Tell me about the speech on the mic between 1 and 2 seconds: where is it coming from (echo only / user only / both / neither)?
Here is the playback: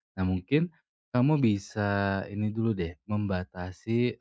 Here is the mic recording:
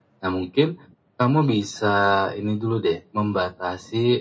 echo only